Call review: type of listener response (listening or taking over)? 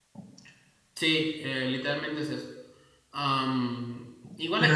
listening